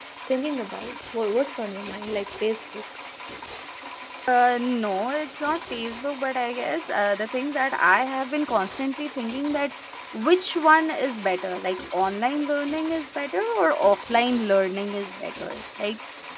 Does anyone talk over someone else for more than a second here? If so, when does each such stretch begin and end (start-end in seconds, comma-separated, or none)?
none